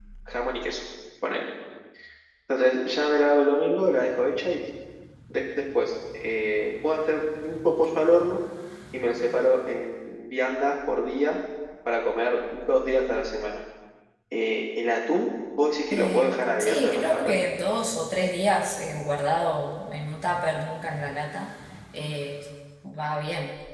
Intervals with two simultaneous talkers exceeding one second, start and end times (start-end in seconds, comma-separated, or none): 15.9-17.3